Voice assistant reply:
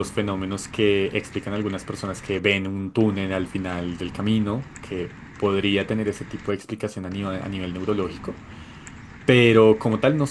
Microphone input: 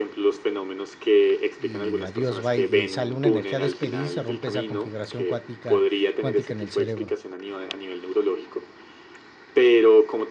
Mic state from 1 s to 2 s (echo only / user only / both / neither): both